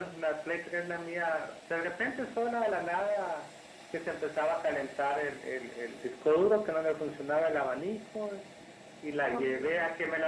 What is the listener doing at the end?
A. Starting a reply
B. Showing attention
B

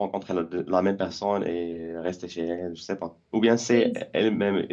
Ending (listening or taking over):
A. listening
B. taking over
A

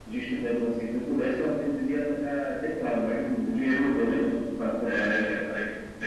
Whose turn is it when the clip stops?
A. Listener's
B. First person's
A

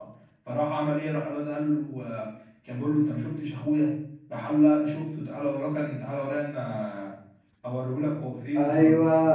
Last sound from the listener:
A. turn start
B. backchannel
A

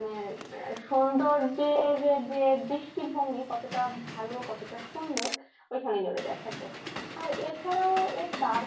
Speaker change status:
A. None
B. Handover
A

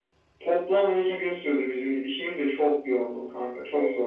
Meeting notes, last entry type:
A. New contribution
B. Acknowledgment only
A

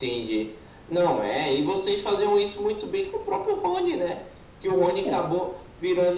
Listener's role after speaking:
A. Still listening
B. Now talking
A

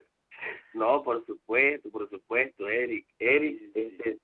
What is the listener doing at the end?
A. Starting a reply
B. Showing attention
B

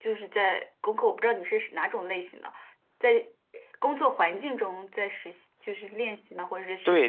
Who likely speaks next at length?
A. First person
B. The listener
B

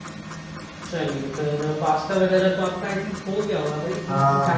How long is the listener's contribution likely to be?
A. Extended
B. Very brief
A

